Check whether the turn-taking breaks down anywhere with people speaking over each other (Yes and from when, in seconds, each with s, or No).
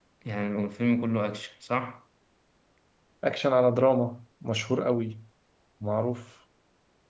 No